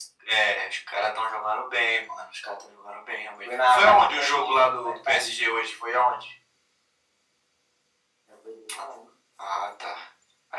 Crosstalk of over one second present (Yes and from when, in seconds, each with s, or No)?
Yes, from 3.4 s